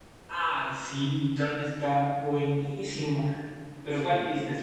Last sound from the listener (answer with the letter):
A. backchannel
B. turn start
A